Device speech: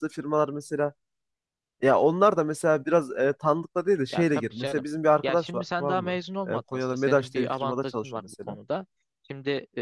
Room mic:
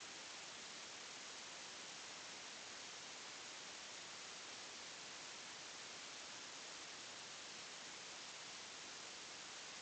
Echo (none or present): none